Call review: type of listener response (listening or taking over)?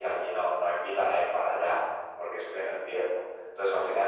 listening